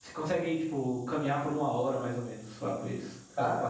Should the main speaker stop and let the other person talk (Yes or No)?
Yes